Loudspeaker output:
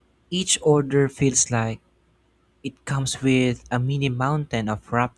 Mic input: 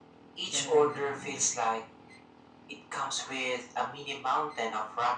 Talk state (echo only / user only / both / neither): both